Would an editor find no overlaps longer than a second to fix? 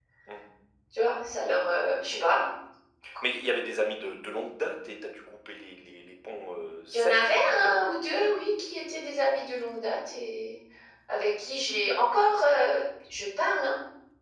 No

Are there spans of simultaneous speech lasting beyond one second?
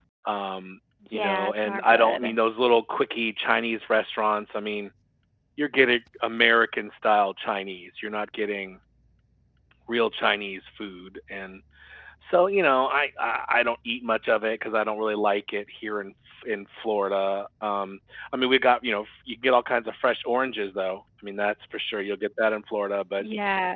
Yes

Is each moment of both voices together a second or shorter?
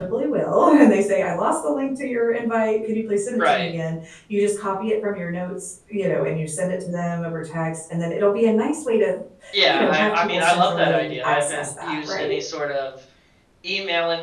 No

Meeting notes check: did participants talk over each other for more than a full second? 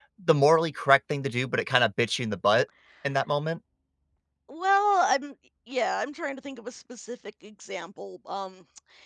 No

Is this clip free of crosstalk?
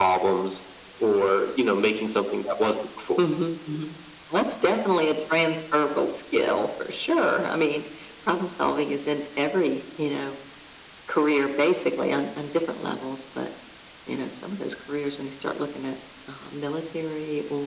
Yes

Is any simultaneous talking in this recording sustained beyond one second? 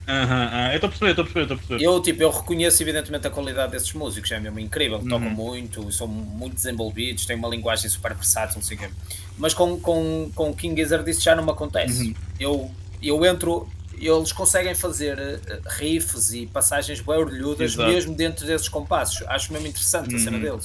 No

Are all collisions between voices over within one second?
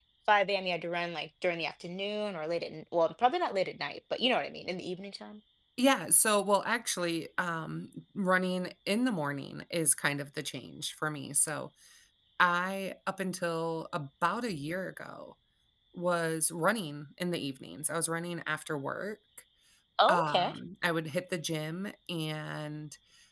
Yes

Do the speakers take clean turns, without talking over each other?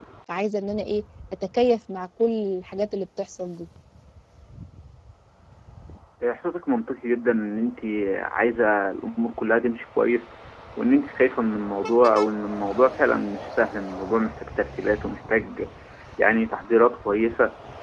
Yes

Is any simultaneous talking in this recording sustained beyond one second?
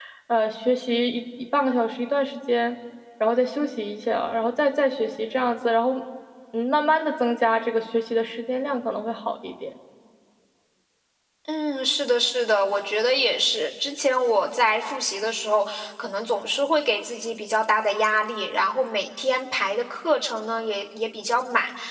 No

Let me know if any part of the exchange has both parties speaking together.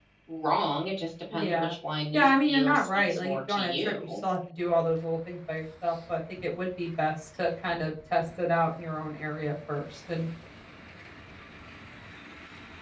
Yes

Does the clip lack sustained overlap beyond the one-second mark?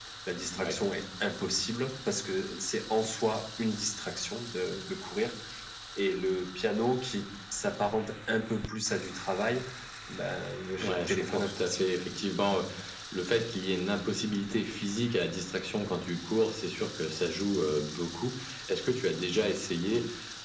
No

